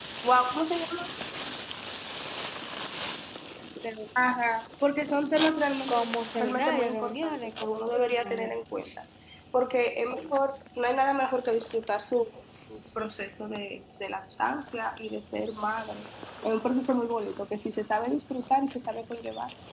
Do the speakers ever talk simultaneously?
Yes, from 5.9 s

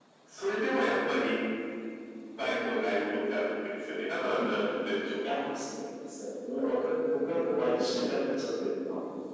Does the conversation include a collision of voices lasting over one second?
No

